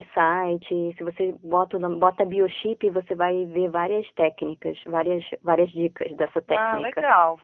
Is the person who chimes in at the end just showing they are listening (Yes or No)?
No